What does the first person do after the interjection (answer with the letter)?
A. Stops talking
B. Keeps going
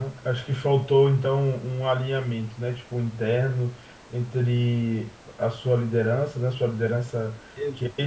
B